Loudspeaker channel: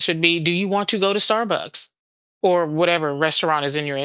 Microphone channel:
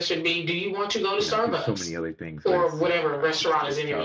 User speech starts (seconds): 1 s

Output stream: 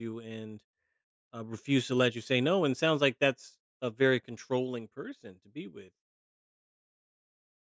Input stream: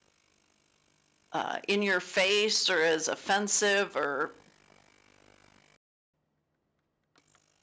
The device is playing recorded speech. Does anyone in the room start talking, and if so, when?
1 s

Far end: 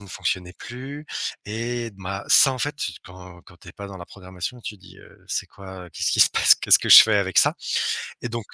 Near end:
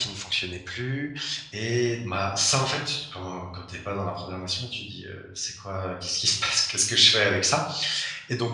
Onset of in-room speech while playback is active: none

